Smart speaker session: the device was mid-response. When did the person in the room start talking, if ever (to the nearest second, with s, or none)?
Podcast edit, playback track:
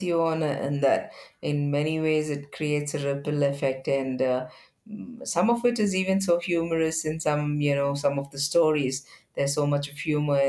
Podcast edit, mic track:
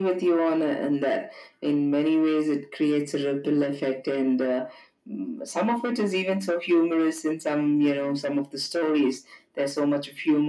none